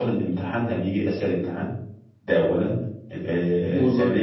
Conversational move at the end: listening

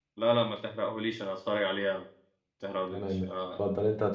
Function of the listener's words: taking over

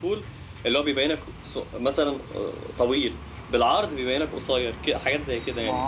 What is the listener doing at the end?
taking over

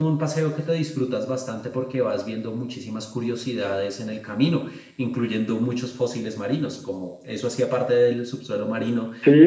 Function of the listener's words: taking over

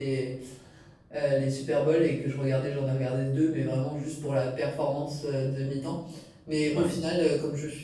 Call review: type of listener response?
listening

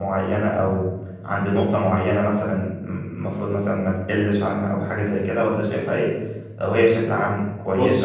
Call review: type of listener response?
listening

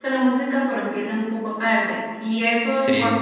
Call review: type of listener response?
listening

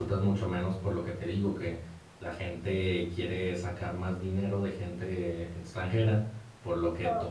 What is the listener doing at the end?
listening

